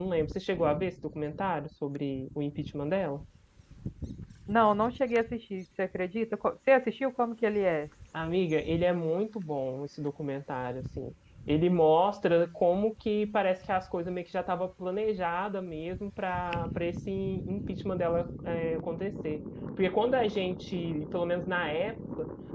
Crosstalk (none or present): none